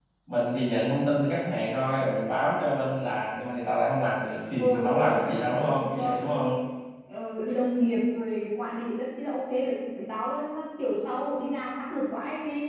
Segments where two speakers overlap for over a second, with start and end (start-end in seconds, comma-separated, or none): 4.6-6.5